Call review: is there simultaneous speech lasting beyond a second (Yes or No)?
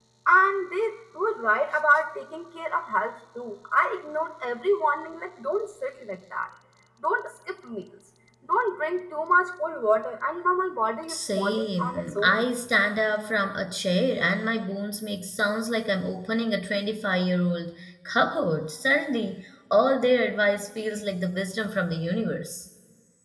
Yes